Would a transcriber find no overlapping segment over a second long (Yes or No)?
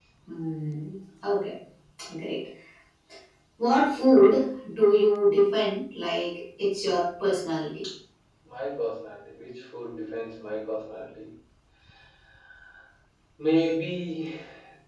Yes